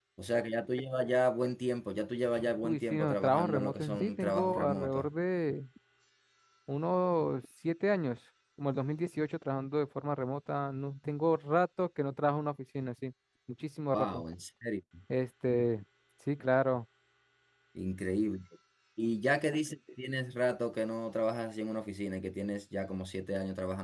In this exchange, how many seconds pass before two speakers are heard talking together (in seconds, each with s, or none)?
2.6 s